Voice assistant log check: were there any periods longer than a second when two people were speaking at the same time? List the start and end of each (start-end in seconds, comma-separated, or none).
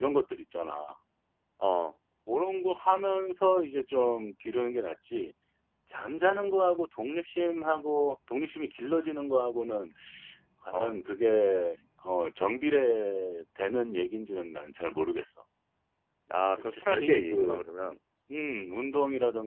16.6-18.0